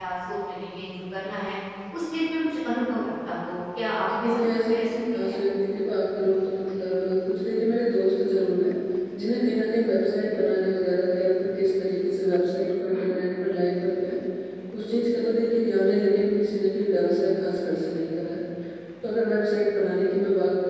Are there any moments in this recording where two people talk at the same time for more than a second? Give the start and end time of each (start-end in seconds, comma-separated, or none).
4.0-5.4